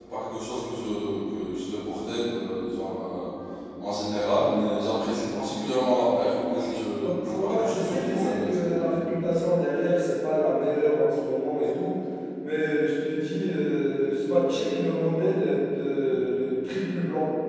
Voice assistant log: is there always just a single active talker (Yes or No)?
No